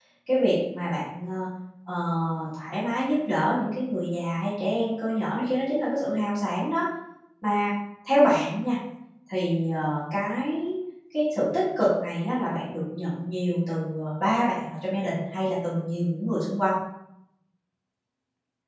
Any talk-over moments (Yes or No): No